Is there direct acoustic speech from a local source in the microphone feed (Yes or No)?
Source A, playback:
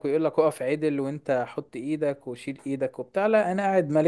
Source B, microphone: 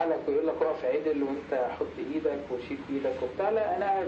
No